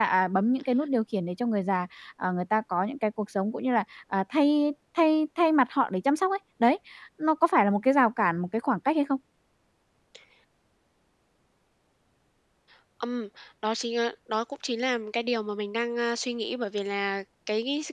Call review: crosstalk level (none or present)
none